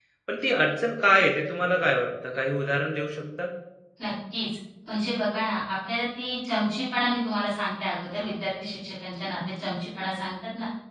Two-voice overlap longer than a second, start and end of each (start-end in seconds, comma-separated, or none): none